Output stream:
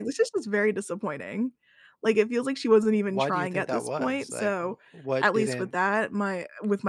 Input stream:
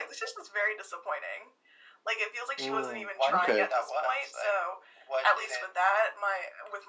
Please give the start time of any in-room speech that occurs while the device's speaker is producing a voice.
3 s

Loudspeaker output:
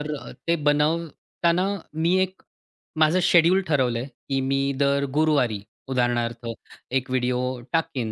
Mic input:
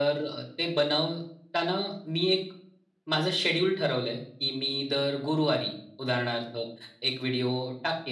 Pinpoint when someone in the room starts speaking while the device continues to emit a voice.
none

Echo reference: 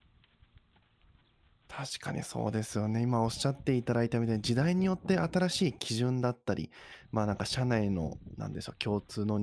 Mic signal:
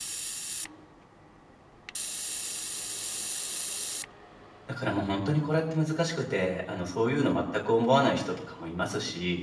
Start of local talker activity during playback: 5 s

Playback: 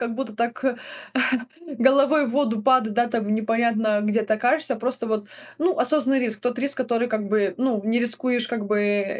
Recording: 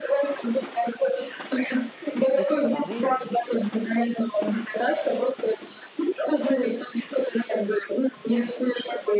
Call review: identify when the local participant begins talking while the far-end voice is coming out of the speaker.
2 s

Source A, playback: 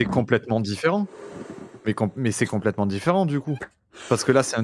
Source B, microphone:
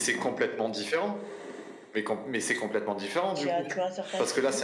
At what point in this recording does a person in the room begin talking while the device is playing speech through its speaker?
3 s

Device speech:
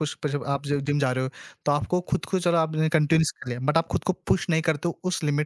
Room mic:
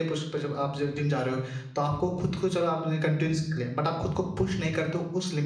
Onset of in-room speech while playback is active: none

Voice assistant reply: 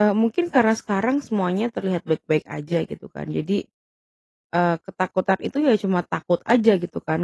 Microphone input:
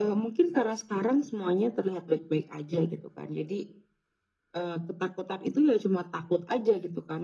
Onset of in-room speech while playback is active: none

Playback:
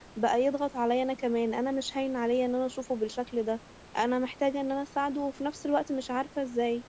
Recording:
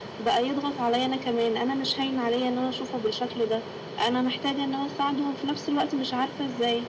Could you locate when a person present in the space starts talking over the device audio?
none

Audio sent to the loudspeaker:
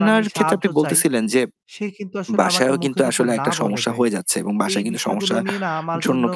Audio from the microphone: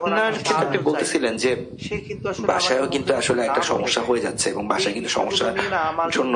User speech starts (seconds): 0 s

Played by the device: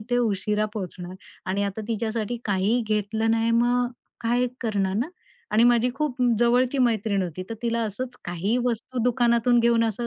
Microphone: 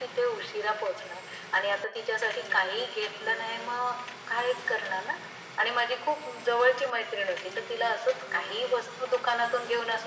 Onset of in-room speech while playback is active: none

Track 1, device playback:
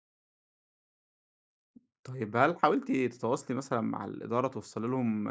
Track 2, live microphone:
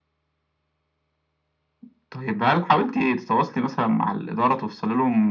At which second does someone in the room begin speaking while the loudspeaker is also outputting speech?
none

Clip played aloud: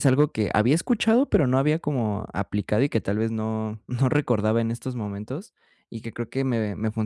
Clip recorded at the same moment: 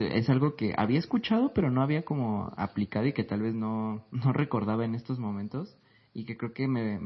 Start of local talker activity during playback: none

